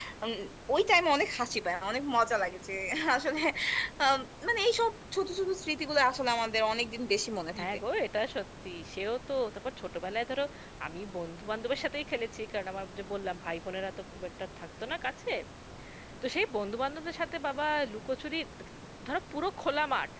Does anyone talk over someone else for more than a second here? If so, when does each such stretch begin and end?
none

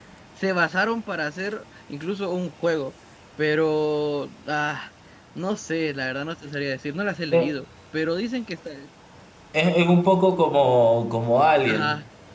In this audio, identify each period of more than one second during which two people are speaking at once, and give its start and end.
none

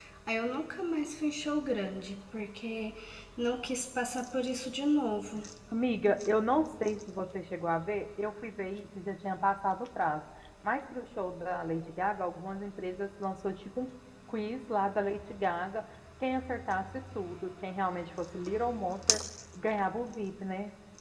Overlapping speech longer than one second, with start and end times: none

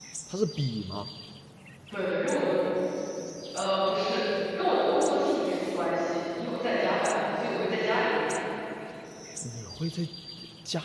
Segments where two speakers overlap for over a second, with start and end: none

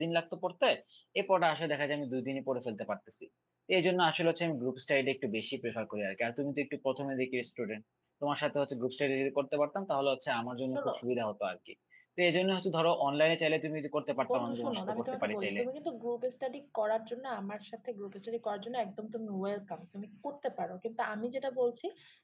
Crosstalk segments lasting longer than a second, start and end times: 14.3-15.6

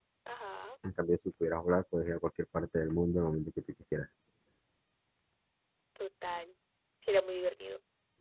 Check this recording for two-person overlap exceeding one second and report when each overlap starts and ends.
none

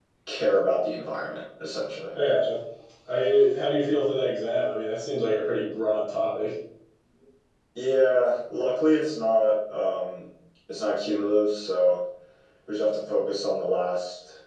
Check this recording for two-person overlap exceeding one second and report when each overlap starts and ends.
none

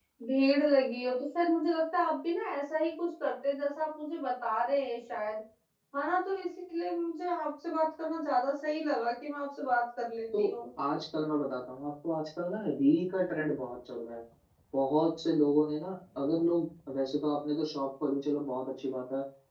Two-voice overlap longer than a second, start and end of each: none

